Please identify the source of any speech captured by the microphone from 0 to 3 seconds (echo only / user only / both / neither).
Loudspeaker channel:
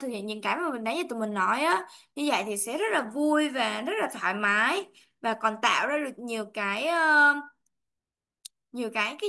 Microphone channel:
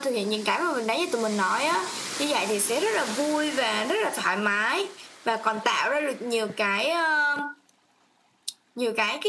echo only